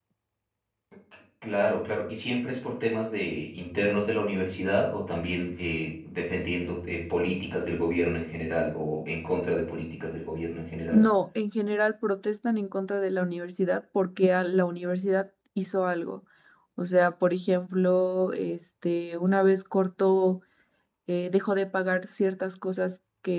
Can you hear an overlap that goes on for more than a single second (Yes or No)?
No